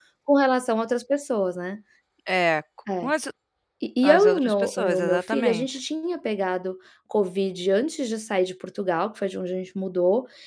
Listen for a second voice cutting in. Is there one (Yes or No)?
Yes